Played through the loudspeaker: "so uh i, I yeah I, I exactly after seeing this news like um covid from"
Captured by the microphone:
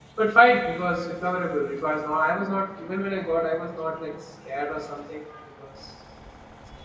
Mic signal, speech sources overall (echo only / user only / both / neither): user only